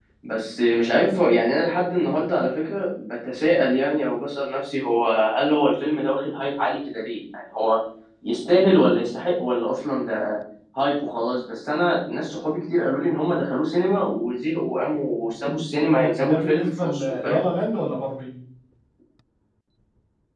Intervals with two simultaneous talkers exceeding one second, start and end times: 16.0-17.4

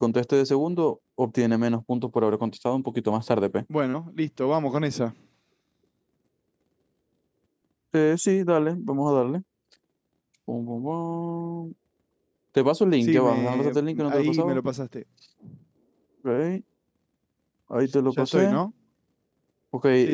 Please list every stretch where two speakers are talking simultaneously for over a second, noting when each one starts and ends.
13.0-14.6

